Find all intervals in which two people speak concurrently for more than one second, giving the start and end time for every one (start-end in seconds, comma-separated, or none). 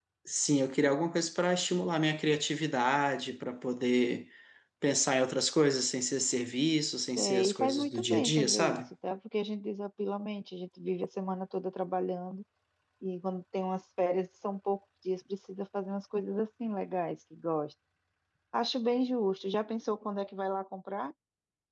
7.2-8.8